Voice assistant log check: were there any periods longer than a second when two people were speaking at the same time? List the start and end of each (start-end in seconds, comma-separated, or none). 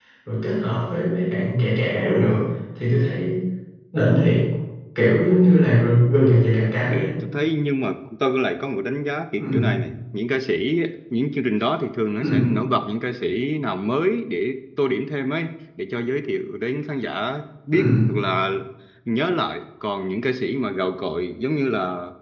none